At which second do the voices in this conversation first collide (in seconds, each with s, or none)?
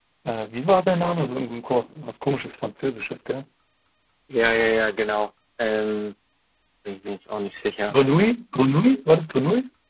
none